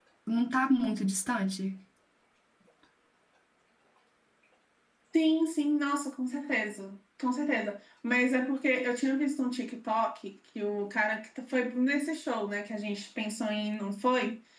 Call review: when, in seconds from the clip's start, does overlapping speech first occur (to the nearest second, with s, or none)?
none